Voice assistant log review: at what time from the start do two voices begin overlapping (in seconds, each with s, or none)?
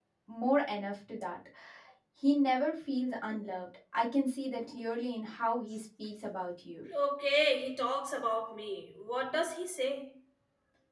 none